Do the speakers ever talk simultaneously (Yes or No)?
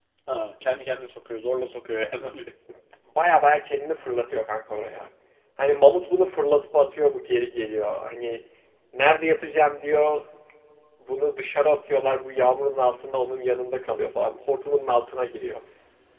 No